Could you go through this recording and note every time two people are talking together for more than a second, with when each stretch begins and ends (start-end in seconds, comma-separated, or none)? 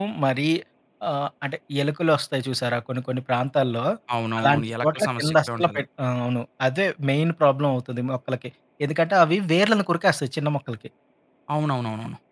4.4-5.8